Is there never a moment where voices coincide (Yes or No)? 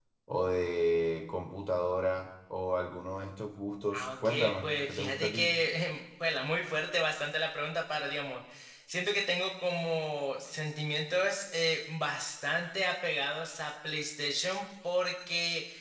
No